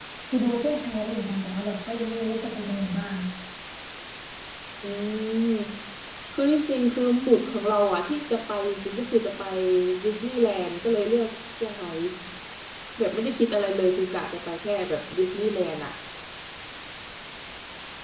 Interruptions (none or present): none